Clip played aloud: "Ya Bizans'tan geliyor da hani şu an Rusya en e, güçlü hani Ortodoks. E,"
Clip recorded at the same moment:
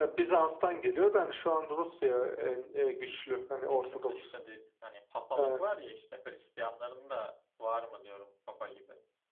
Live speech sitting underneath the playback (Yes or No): Yes